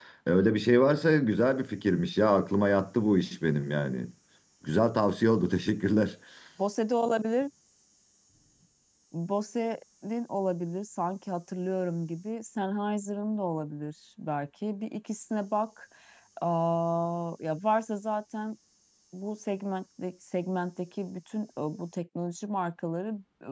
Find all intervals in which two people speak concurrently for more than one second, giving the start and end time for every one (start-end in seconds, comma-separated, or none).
none